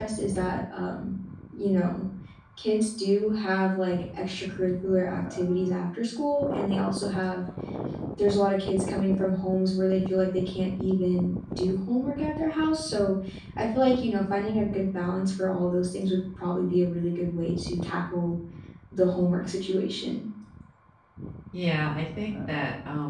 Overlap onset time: none

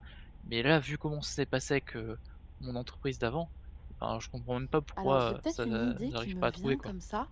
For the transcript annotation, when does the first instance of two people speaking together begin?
5.0 s

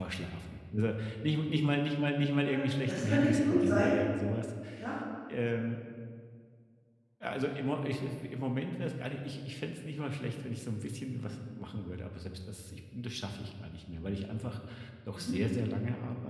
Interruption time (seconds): 2.4 s

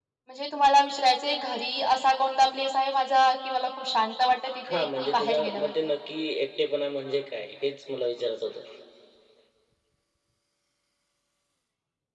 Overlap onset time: 4.6 s

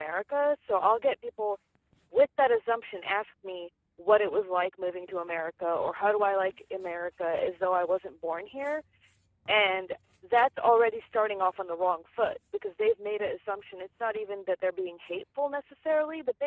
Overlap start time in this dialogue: none

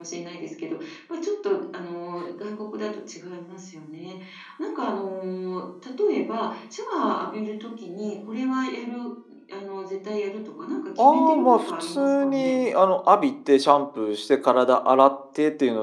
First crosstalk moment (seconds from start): 11.0 s

